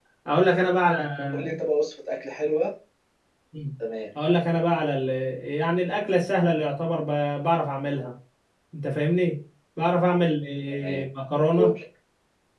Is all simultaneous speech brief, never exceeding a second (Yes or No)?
Yes